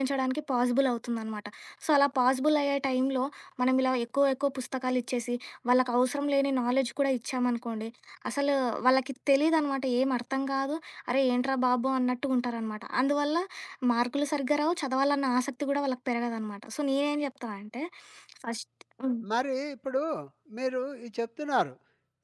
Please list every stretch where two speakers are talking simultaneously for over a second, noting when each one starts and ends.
none

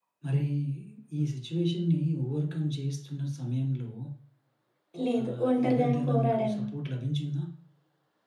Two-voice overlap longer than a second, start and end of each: 5.2-6.6

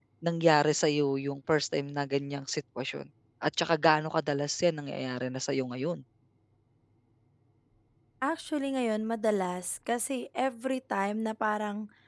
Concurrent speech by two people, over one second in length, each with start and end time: none

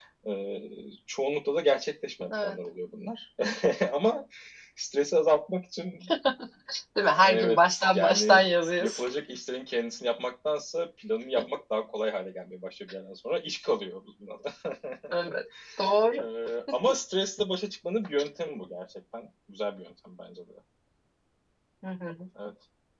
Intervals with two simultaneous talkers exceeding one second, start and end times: 7.2-8.4

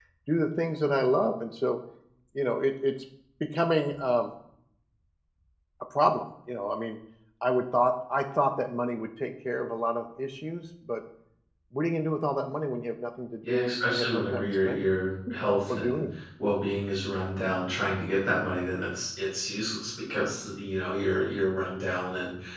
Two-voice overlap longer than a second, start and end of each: 13.5-14.9

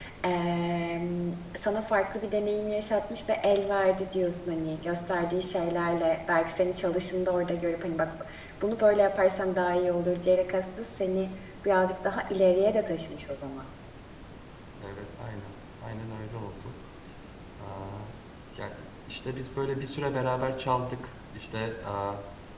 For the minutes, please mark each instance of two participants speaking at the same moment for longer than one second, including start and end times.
none

